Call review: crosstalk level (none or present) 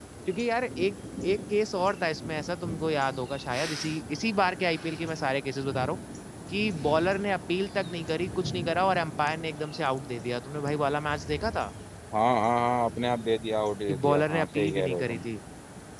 present